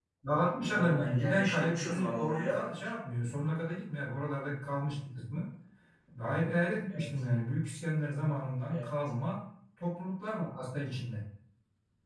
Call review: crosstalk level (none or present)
present